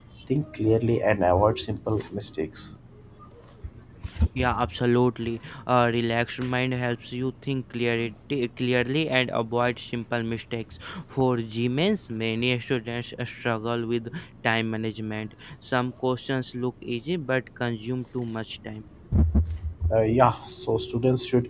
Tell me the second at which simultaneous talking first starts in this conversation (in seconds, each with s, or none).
none